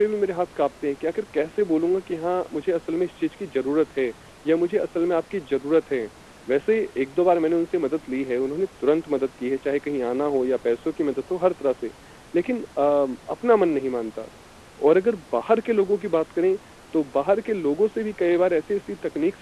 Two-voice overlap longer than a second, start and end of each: none

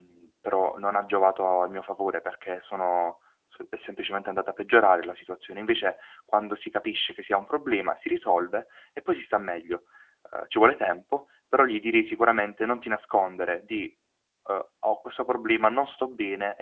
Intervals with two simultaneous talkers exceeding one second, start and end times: none

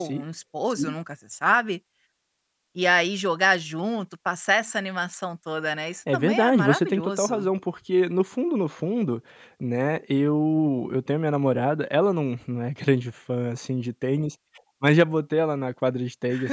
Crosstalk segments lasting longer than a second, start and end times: 6.1-7.5

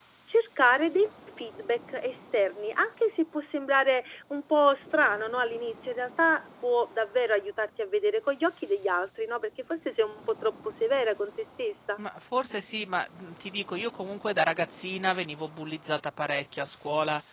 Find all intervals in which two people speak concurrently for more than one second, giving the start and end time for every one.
none

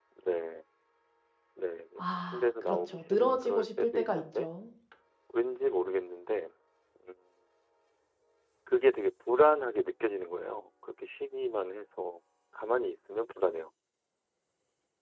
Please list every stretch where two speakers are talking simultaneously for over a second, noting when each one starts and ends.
2.0-4.5

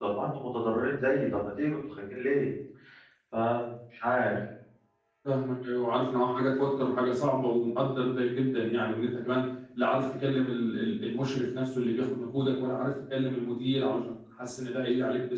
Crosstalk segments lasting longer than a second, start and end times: none

